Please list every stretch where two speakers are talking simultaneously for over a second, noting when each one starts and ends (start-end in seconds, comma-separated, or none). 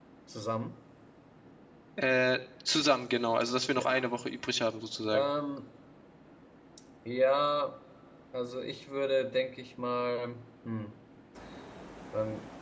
none